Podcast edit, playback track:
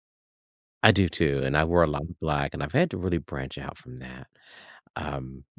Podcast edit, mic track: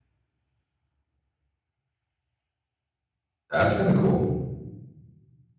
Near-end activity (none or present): present